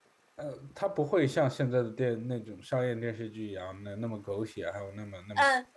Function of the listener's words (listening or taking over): taking over